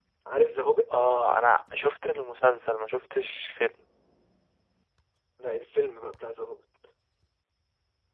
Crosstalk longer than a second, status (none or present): none